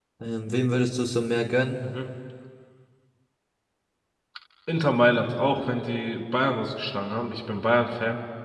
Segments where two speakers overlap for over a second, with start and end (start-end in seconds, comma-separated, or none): none